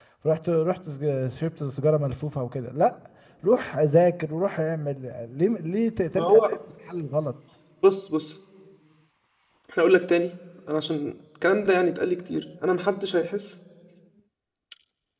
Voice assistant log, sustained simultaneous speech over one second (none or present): none